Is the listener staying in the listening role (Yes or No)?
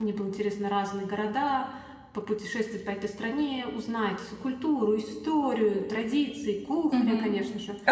No